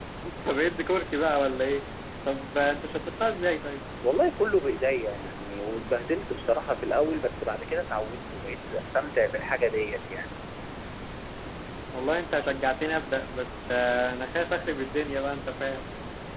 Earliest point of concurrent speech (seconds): none

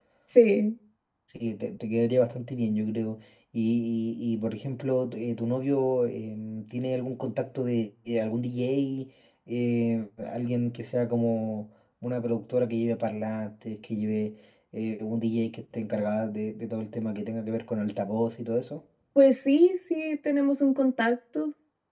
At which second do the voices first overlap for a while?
none

